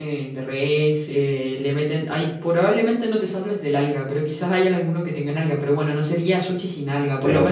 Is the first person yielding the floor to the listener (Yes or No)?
No